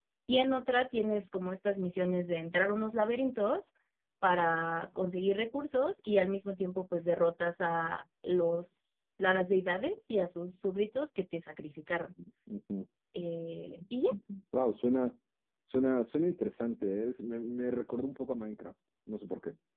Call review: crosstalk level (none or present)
none